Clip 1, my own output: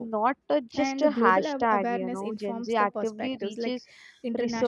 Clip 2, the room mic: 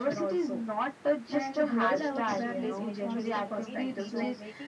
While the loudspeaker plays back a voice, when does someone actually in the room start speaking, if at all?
1.7 s

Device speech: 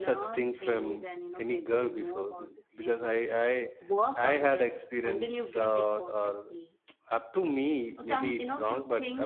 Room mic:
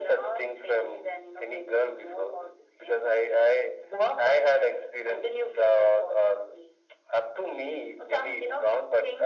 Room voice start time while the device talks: none

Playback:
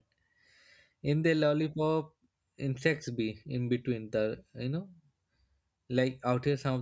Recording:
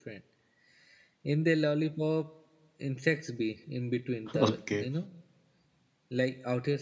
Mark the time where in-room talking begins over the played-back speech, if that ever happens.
4.3 s

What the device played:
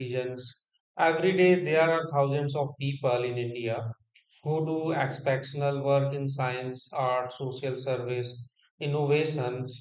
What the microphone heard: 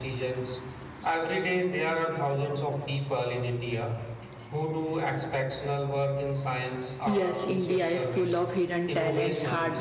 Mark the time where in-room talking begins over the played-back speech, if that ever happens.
7.0 s

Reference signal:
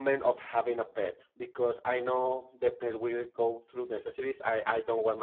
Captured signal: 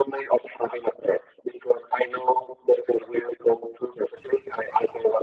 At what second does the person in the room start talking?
none

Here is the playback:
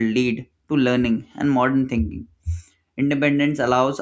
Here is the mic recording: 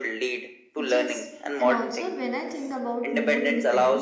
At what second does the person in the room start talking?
0.7 s

